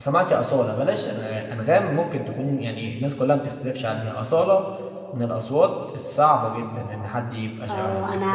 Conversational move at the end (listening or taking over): taking over